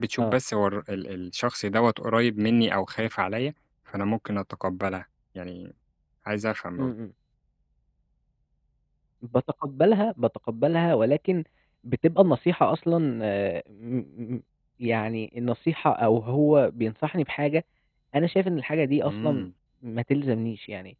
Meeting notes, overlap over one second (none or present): none